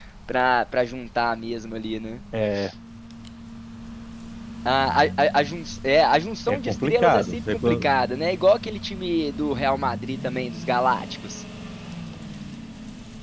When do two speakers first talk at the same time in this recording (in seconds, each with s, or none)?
6.5 s